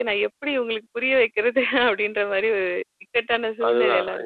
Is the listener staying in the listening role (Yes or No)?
No